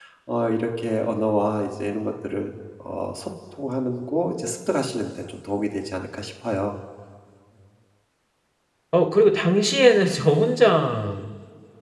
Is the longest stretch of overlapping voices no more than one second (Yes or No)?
Yes